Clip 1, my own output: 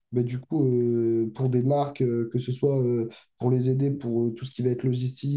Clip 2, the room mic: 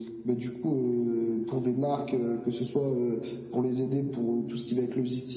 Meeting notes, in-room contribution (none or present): none